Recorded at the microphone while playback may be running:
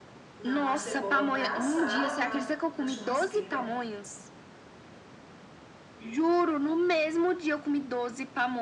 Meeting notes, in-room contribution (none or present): present